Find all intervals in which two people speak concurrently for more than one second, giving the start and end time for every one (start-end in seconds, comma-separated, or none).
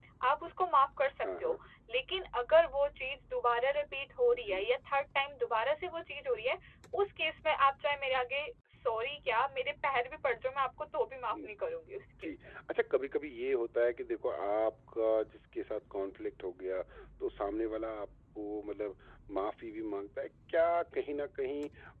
none